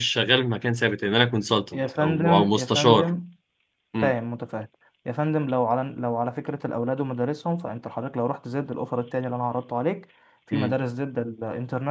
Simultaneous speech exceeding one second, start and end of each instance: 1.7-3.1

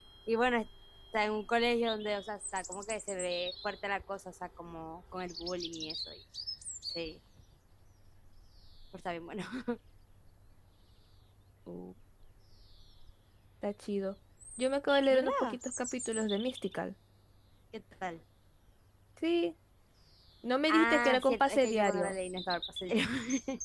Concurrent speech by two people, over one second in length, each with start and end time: 20.7-22.2

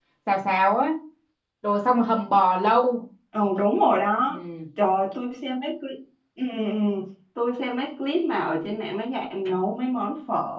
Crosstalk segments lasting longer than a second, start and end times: none

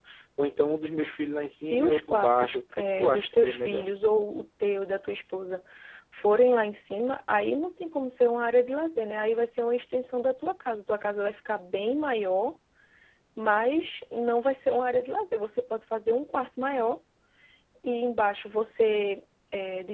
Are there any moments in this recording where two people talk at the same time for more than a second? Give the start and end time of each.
1.5-3.9

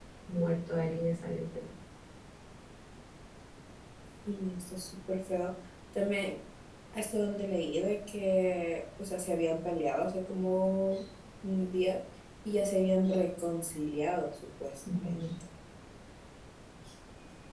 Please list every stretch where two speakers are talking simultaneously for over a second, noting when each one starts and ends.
none

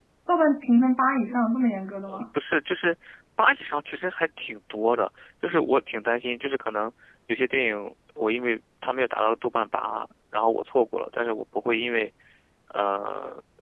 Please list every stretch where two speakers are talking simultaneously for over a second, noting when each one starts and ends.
none

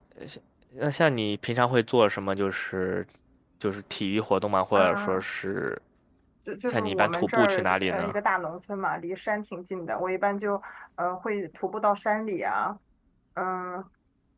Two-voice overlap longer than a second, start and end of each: 6.7-8.1

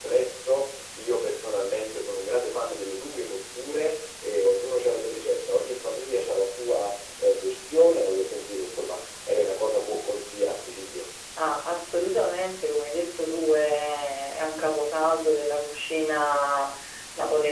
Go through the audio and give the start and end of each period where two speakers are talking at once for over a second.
none

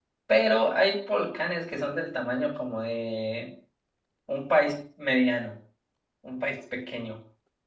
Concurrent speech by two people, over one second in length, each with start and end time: none

